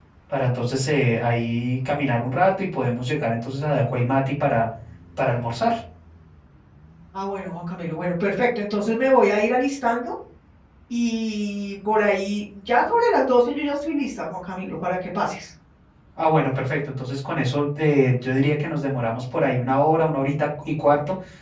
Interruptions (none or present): none